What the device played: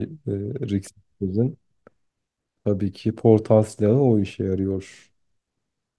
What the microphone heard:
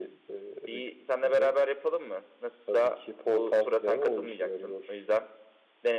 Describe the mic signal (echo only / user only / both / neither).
both